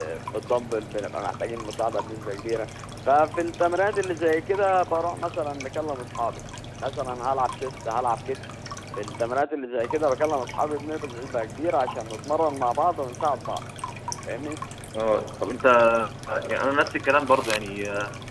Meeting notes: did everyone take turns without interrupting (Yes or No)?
Yes